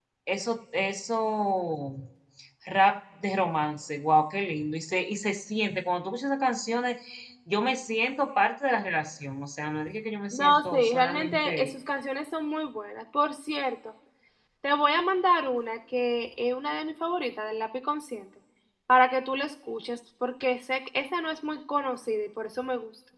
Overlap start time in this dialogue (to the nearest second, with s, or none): 10 s